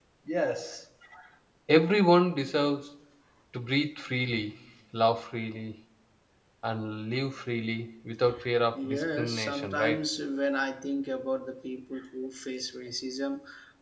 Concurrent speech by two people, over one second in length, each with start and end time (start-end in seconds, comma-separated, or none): 8.7-10.0